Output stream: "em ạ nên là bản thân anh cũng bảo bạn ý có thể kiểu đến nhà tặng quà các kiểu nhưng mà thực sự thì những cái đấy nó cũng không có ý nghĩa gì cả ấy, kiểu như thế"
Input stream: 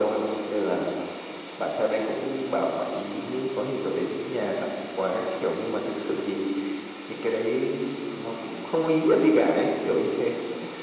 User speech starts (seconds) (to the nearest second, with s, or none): none